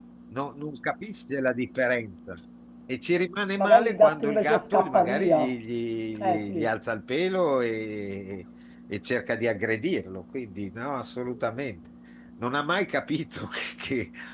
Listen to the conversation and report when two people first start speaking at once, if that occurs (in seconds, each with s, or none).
3.6 s